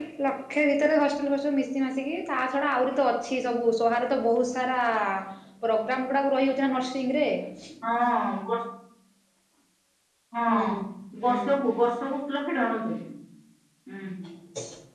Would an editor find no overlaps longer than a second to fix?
Yes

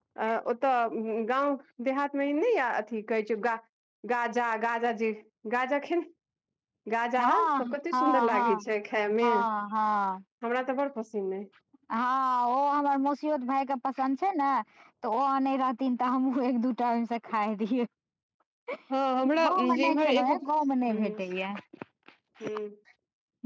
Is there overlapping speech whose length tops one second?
Yes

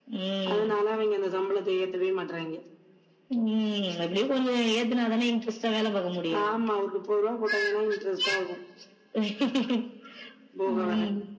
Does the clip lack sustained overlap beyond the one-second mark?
Yes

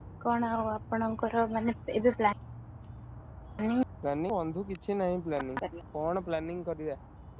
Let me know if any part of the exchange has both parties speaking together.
No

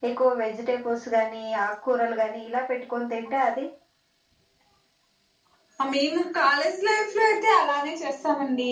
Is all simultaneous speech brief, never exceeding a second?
Yes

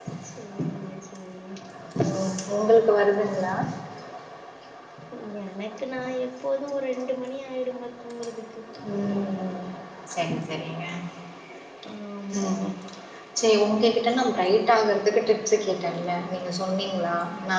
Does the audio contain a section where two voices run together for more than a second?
No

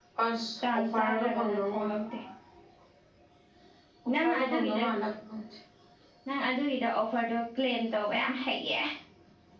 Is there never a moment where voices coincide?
No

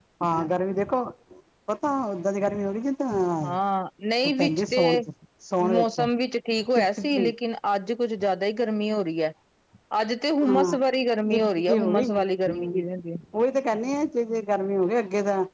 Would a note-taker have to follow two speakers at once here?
Yes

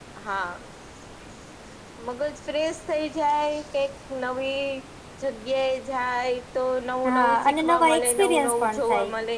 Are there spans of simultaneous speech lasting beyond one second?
Yes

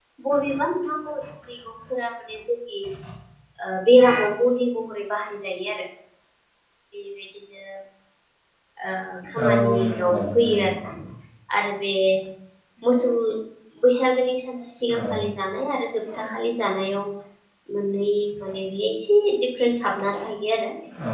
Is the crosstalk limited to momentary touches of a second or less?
No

